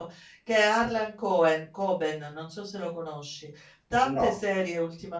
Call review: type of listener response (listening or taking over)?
listening